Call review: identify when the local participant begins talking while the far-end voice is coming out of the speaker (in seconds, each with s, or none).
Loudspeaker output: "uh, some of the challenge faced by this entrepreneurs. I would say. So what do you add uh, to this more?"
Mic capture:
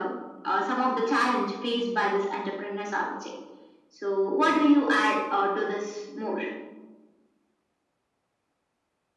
none